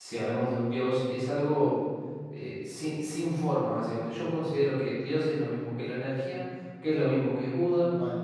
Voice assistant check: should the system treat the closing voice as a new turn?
No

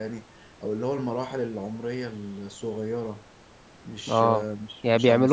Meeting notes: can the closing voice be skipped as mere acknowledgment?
No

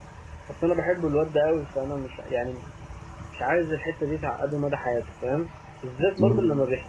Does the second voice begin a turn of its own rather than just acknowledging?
No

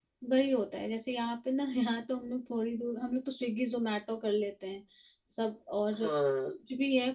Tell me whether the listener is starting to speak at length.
No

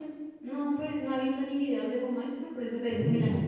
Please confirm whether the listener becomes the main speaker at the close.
No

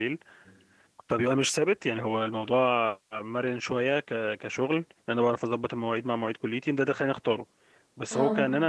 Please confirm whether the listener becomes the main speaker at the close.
No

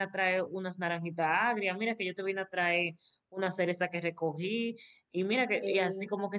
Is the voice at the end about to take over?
No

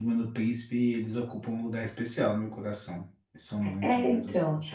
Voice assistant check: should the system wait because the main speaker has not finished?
No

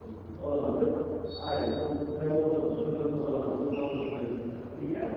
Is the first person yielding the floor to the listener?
Yes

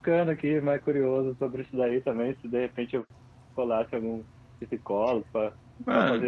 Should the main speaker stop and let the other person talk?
No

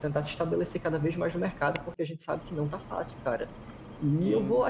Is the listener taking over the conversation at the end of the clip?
No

